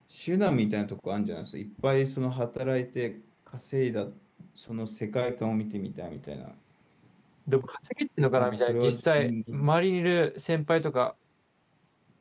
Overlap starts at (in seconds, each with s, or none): 8.4 s